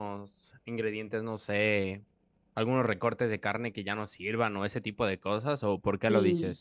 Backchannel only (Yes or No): No